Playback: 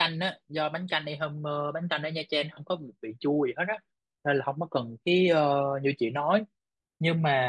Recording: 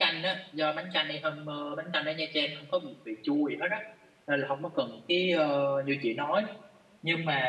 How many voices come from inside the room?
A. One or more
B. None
B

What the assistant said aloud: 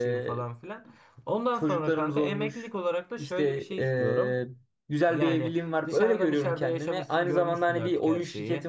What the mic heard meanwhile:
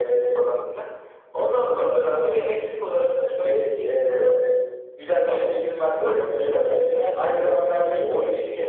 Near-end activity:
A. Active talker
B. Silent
A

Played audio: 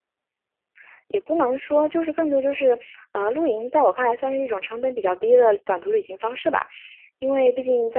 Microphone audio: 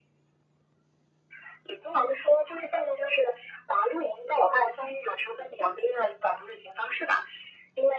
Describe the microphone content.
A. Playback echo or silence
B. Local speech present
A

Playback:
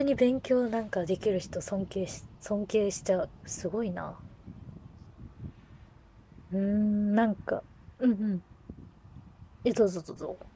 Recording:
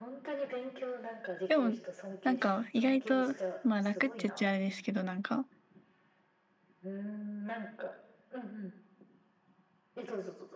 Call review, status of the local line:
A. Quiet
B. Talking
B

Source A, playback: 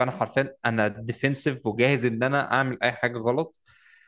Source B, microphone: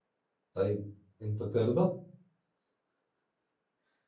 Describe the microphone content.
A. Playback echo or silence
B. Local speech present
B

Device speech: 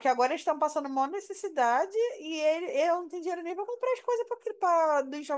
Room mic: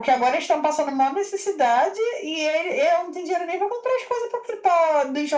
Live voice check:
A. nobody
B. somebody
A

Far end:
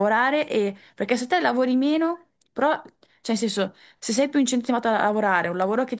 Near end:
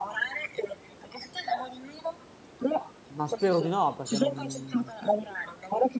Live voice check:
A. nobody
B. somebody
B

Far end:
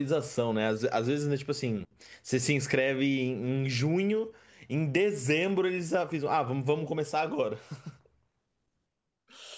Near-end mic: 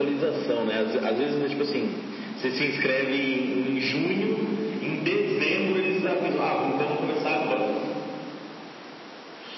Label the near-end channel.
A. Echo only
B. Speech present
A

